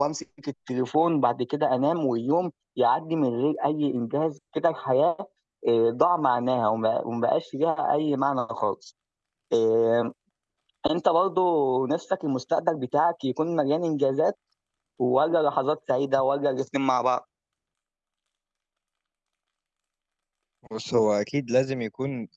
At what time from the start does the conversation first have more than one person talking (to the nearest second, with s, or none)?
none